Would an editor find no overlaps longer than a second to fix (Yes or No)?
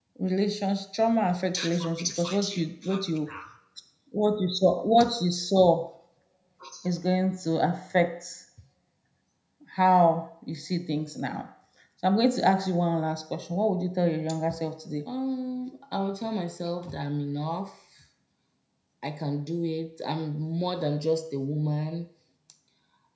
No